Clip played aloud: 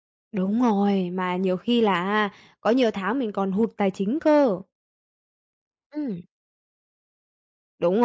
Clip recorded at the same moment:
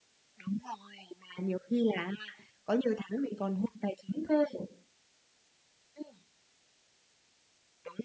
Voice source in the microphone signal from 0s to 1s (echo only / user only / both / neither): echo only